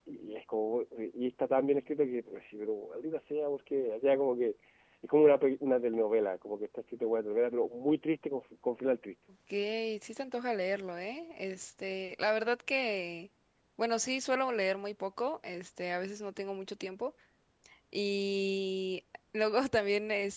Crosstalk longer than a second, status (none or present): none